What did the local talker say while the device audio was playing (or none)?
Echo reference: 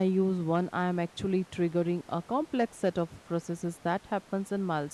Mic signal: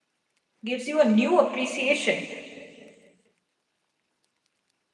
gives you a new appreciation